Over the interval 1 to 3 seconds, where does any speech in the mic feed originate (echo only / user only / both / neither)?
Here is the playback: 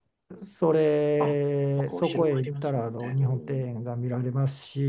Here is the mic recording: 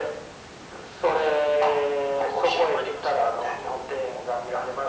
echo only